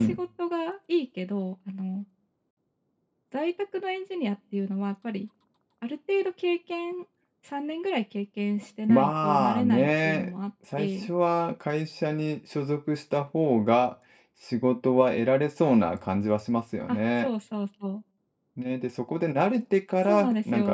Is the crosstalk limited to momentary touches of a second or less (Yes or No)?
No